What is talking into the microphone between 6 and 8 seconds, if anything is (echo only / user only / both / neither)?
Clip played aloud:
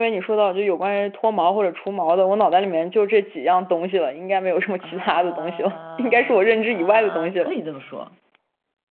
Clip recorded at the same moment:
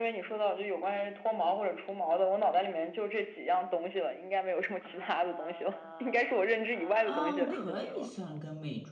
both